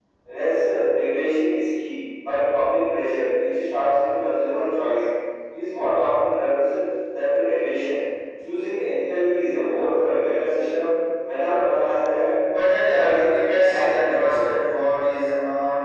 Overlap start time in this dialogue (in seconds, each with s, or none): 12.9 s